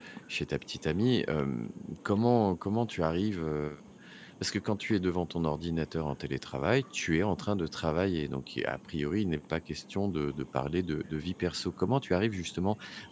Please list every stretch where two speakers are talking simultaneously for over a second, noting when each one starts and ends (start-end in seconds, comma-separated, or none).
none